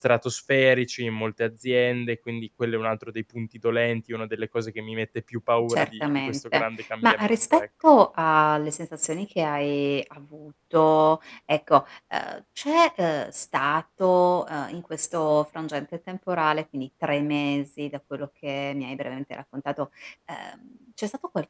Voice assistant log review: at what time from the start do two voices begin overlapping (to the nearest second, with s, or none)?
6 s